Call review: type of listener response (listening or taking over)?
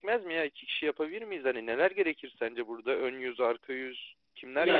taking over